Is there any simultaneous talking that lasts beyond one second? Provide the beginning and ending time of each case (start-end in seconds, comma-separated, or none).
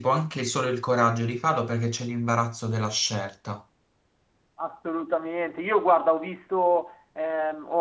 none